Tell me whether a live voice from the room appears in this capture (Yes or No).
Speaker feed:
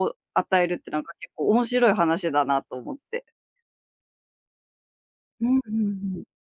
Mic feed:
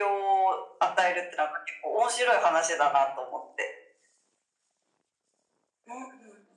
No